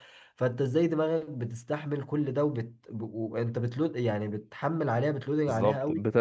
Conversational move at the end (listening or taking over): taking over